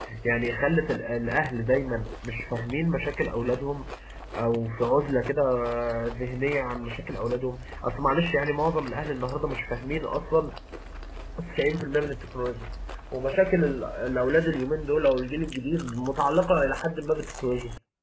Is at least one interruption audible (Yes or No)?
No